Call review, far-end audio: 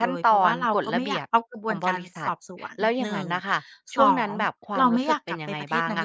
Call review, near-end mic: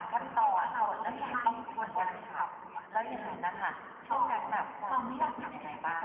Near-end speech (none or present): present